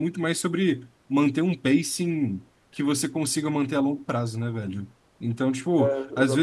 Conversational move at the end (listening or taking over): listening